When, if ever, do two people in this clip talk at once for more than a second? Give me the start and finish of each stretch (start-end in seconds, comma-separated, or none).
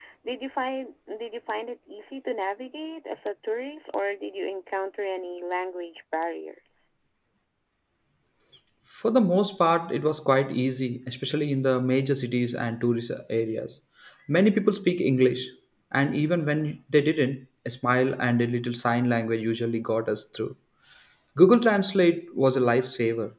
none